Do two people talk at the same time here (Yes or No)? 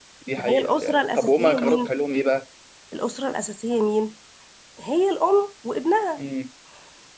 Yes